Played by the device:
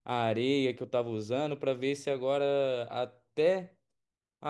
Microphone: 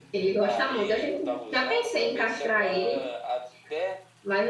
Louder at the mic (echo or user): user